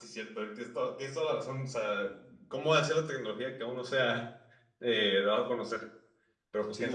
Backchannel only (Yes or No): No